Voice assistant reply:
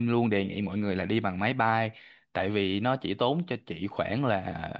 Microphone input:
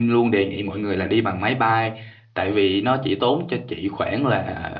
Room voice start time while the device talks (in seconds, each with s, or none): none